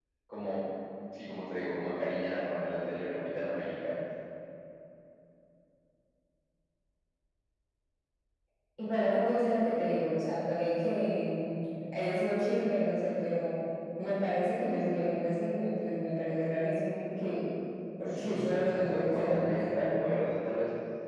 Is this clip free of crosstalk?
No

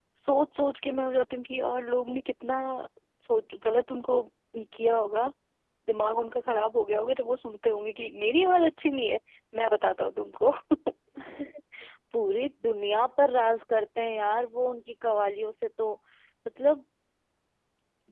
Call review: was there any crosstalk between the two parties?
No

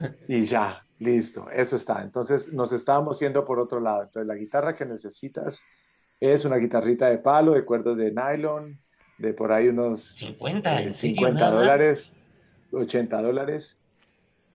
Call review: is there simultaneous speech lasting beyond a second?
Yes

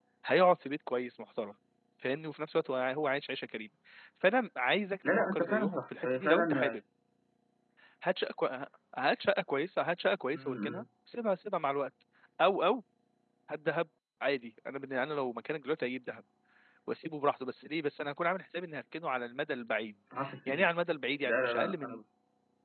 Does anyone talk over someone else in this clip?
Yes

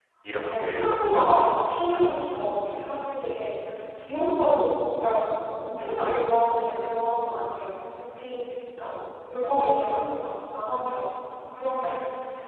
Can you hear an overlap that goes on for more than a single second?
Yes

